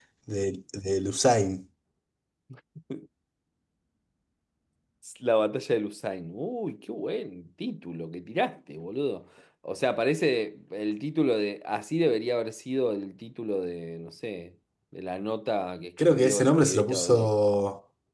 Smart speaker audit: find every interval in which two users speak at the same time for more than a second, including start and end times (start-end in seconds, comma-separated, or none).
16.0-17.3